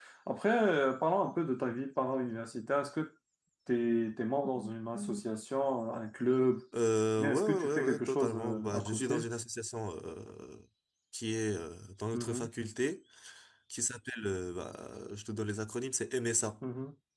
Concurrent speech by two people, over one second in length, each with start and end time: 7.2-9.2

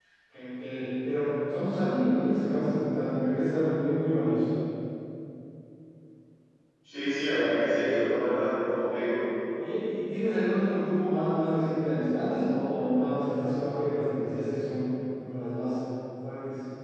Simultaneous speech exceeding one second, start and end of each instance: none

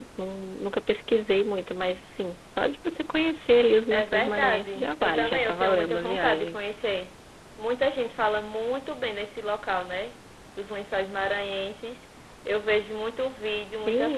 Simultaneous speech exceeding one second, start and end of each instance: 3.9-6.6

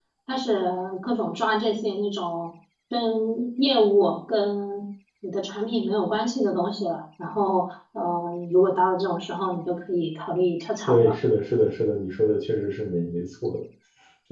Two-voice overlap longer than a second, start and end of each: none

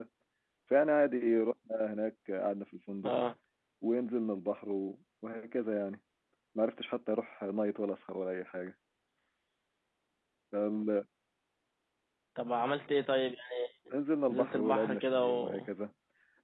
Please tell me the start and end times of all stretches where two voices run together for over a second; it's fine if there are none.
14.3-15.7

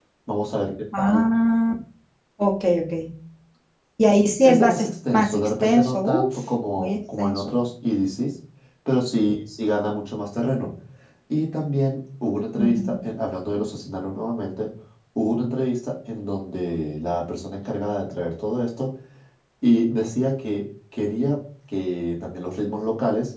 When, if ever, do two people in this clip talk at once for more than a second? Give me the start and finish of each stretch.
4.4-7.5

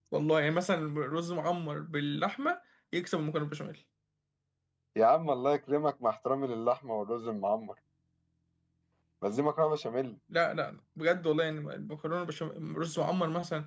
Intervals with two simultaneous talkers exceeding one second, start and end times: none

